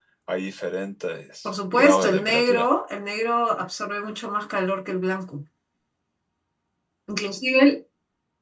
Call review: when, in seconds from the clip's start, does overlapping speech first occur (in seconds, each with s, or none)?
1.4 s